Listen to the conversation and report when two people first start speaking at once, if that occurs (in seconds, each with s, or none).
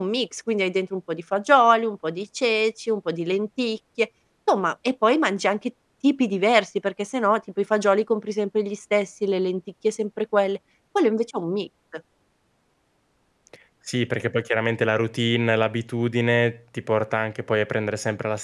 none